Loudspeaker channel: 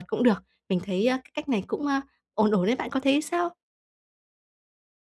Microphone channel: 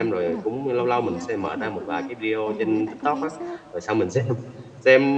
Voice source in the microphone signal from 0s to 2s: both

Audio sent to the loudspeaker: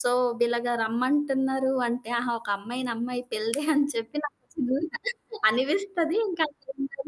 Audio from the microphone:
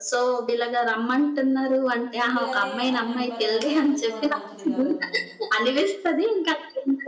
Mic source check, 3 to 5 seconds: both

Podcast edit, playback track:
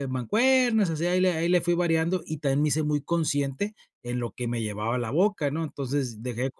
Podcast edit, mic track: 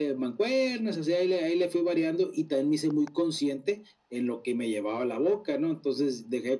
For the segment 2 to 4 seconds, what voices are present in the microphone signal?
echo only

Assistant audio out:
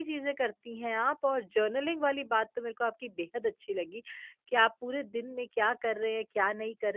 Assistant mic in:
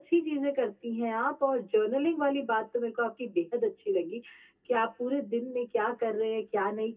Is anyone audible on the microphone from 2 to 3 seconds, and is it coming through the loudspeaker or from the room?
echo only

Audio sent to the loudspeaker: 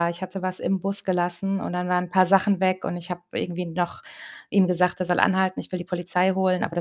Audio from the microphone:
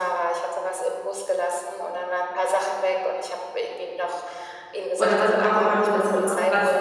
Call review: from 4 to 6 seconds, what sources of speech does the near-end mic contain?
both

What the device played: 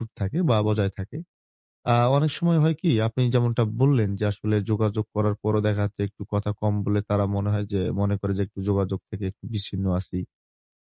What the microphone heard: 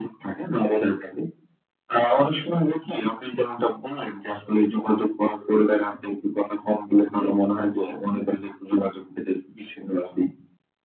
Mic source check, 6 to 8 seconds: echo only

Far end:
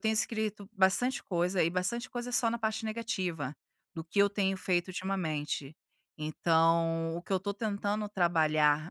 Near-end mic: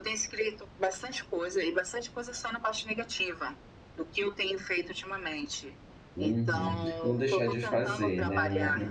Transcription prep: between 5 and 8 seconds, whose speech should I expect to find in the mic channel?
both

